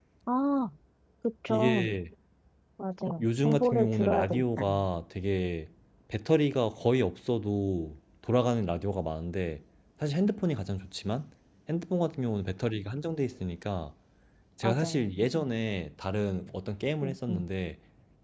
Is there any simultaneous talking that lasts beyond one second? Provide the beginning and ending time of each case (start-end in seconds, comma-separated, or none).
3.2-4.6